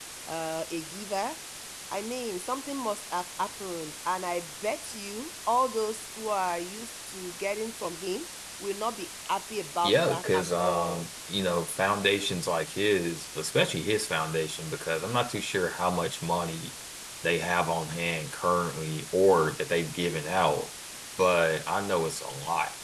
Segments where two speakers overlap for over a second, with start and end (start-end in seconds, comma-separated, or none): 9.8-11.1